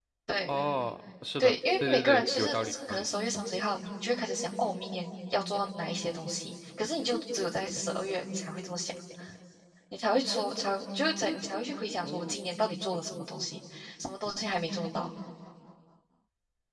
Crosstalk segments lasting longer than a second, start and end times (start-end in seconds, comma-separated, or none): 1.4-3.1